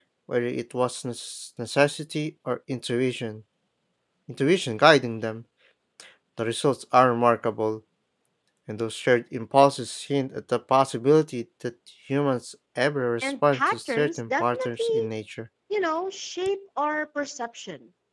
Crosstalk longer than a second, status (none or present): present